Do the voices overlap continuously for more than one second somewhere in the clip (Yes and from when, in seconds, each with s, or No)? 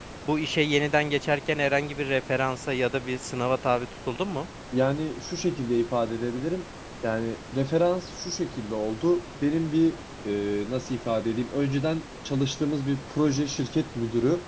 No